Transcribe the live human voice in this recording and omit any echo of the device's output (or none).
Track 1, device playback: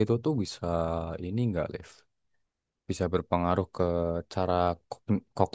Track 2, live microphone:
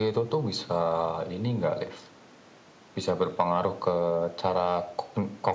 none